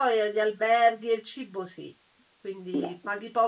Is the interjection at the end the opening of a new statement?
No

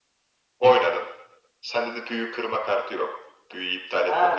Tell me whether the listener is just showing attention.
No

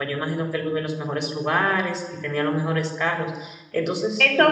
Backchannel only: No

